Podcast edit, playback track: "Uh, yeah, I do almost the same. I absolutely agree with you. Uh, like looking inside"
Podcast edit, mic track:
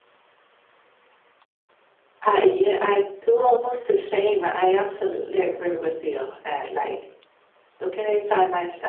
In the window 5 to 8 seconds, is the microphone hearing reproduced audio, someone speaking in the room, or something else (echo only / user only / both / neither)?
echo only